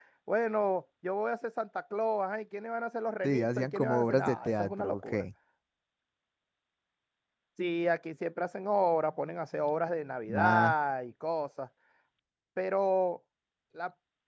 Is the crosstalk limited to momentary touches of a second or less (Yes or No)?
No